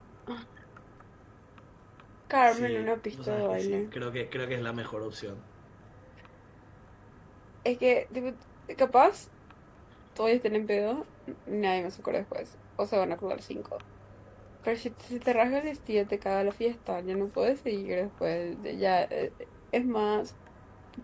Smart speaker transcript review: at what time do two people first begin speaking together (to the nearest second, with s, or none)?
2 s